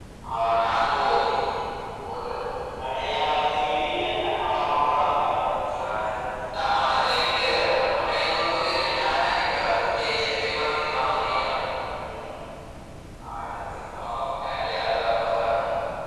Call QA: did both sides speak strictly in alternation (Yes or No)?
Yes